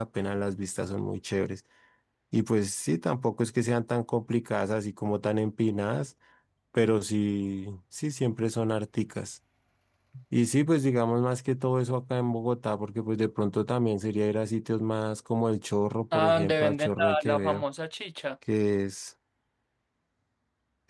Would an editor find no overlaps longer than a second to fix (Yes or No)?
No